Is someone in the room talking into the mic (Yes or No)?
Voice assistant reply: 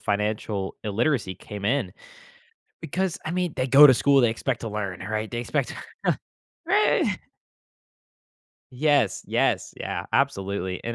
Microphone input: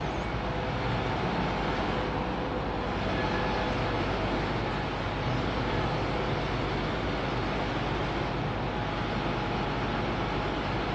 No